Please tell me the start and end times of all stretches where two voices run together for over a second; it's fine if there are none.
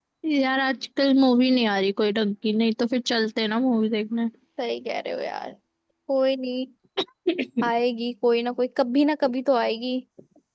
none

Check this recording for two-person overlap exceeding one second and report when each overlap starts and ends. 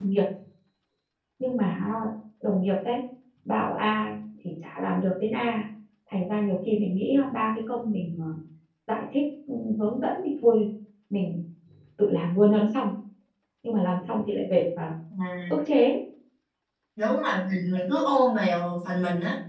none

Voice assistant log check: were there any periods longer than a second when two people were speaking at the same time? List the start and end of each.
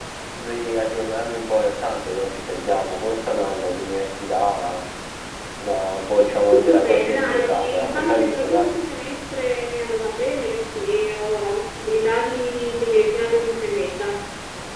6.7-8.7

